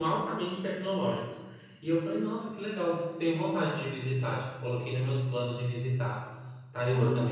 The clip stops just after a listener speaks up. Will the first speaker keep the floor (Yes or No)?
No